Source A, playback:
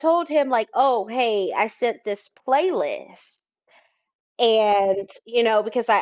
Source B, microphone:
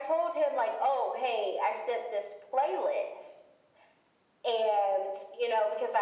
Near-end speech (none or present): none